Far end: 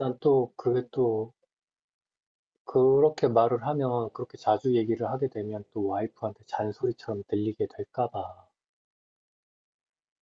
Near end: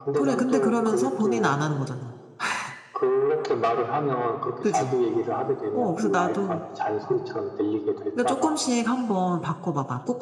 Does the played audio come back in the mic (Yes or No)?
Yes